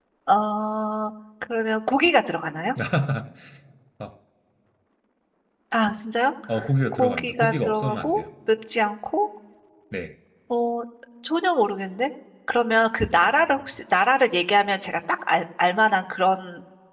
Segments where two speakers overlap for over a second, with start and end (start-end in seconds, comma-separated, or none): 6.9-8.2